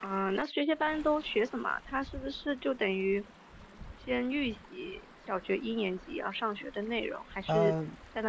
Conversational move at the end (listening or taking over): listening